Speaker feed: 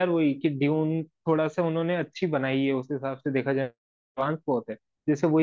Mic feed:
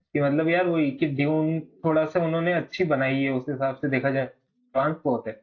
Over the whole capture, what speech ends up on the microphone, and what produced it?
echo only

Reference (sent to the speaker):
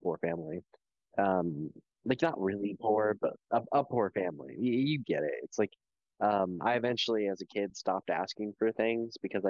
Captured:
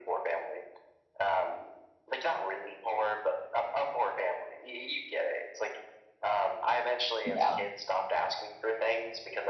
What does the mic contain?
both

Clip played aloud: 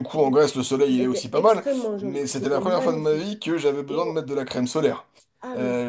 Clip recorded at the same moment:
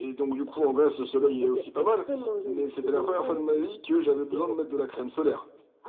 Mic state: echo only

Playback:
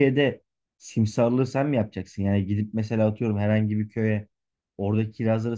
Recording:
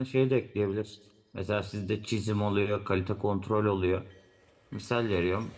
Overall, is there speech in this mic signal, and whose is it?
user only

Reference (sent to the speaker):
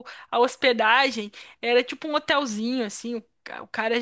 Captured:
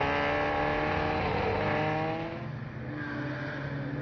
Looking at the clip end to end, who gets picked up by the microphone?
neither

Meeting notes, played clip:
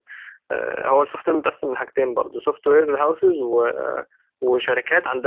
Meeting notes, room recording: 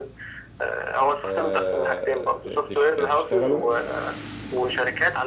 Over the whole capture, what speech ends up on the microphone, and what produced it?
both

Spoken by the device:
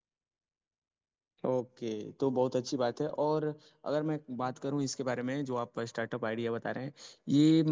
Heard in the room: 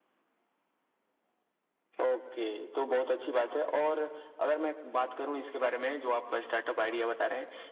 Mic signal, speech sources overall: echo only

